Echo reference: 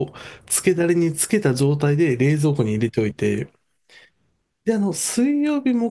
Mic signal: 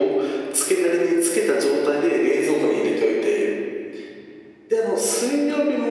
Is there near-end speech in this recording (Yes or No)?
No